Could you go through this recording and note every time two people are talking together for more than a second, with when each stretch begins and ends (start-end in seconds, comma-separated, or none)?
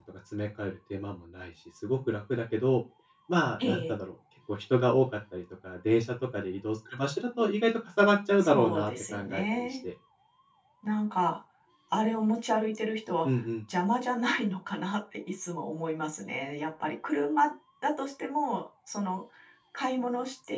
8.4-9.8